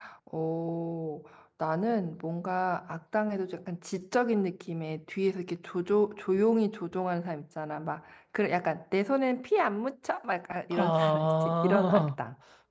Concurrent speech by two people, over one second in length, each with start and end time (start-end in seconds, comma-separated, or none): 10.7-12.1